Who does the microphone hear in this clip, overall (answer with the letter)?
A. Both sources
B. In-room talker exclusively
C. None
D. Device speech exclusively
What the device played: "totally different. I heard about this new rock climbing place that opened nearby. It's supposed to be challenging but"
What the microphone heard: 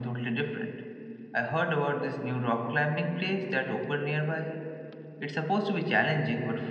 D